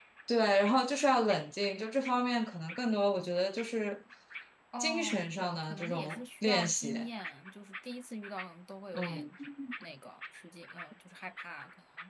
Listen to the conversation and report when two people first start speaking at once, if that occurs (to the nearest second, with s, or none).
5 s